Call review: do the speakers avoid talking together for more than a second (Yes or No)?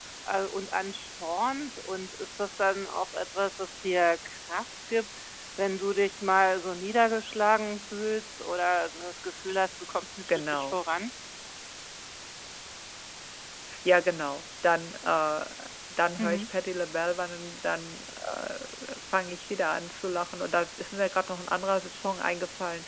Yes